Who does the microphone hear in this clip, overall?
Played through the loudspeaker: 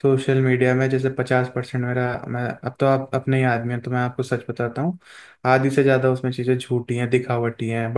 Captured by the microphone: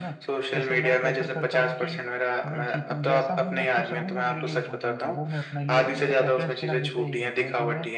both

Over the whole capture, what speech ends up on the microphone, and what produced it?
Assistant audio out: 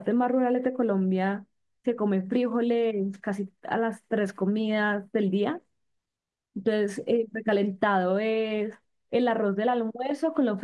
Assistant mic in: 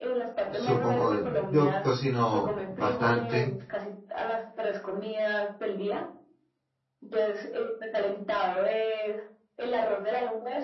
both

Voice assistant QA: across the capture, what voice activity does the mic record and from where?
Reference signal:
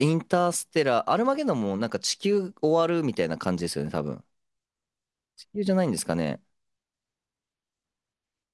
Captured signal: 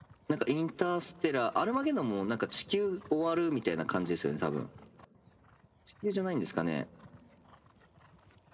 echo only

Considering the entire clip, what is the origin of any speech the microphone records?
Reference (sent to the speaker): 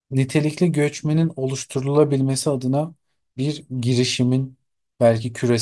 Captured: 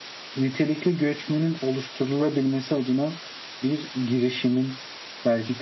echo only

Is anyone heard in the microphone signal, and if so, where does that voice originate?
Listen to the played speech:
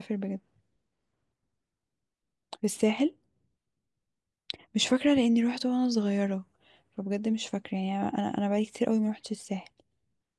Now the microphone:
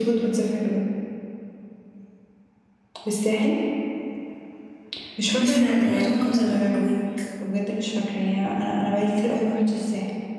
both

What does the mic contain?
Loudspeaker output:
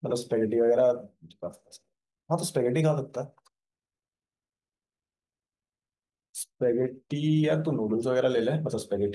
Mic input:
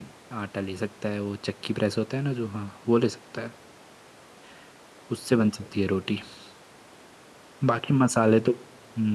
user only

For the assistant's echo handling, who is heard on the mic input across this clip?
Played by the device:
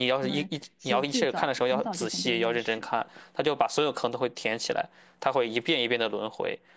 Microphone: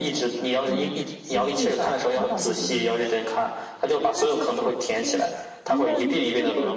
both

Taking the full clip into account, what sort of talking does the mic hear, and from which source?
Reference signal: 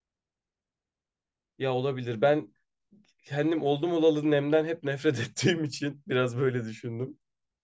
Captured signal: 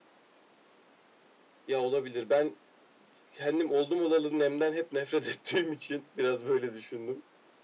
echo only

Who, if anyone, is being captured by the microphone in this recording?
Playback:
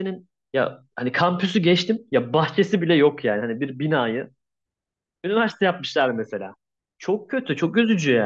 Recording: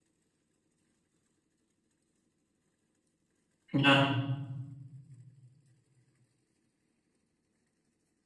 user only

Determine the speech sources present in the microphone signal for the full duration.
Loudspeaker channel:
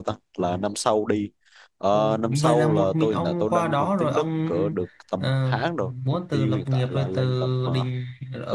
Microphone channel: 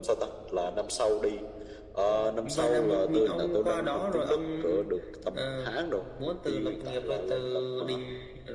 echo only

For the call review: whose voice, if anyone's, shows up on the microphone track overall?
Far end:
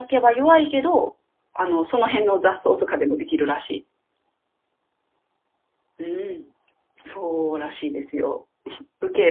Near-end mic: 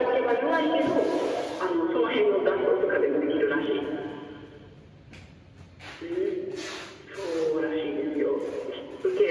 echo only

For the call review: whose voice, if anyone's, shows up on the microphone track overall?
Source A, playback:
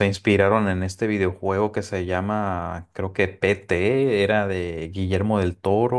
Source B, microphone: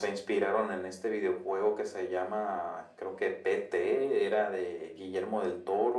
echo only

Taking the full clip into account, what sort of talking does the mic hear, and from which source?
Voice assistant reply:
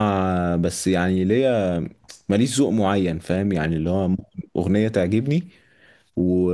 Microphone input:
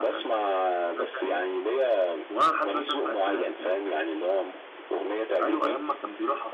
both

